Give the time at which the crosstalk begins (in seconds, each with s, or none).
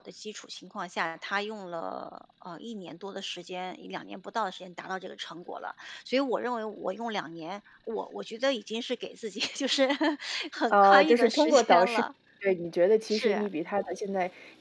10.7 s